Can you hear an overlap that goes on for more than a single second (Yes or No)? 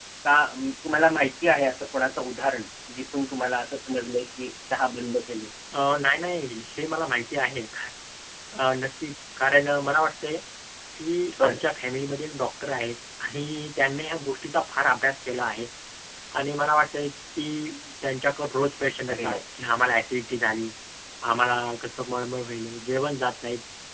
No